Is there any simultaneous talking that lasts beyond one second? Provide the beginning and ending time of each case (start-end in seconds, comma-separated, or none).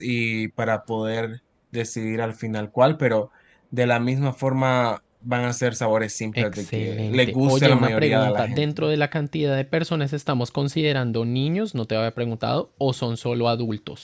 6.4-8.8